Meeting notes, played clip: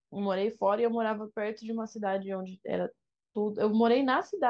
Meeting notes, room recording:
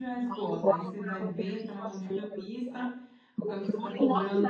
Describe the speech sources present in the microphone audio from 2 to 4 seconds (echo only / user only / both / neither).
both